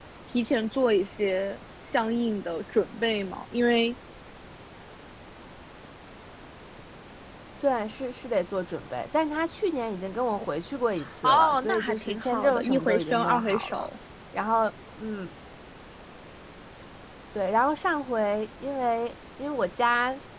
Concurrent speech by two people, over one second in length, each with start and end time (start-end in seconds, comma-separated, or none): 11.2-13.9